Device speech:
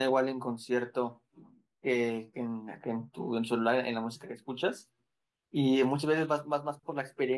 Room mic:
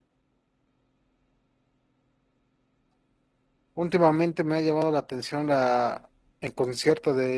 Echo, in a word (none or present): none